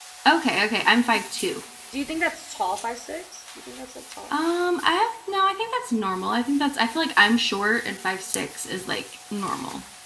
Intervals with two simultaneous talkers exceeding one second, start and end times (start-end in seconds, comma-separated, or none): none